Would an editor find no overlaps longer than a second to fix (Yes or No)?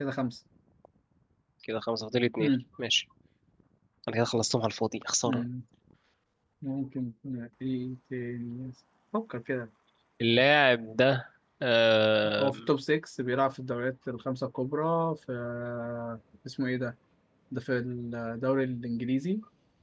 Yes